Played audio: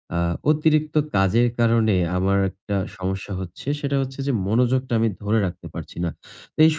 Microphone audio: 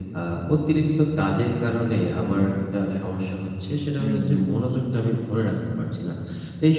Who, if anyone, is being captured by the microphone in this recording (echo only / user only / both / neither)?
both